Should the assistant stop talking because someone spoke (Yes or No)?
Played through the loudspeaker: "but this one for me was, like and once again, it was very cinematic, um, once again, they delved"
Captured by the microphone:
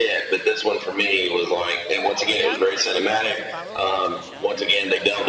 Yes